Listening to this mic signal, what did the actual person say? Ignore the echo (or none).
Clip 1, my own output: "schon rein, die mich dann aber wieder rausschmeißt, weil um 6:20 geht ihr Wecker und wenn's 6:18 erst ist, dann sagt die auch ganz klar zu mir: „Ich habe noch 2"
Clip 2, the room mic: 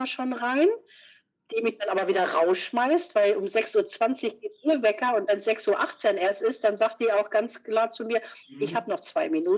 Mhm.